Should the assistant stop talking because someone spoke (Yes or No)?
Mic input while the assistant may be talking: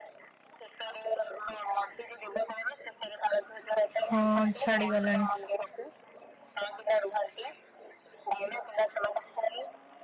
Yes